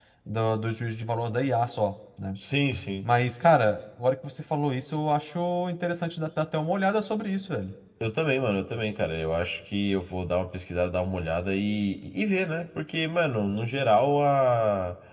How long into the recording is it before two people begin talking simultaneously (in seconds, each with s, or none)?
none